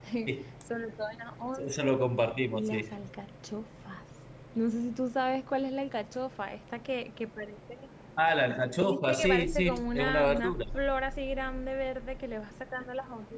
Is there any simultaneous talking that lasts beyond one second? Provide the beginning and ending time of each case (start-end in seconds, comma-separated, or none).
8.8-10.6